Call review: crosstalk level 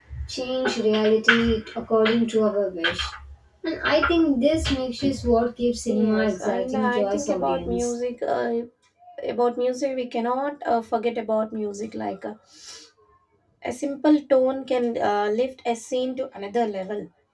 present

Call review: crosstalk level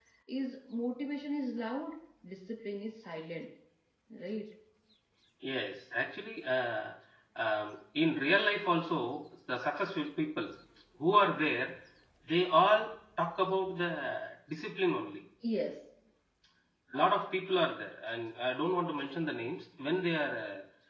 none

